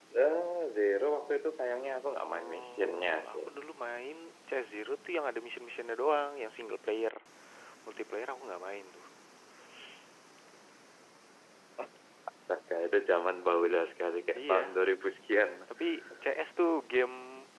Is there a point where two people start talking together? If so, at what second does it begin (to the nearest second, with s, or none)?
2 s